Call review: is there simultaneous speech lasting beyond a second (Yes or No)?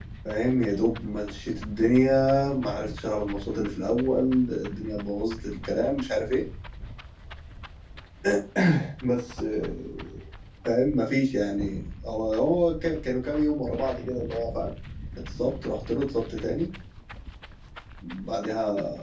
No